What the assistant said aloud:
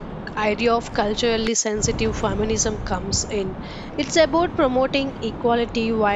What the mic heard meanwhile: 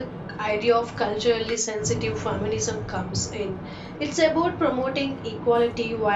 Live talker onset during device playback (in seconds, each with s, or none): none